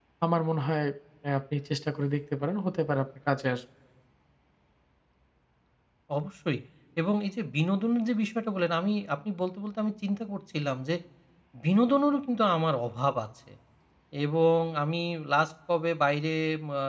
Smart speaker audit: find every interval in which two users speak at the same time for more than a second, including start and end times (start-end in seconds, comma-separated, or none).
none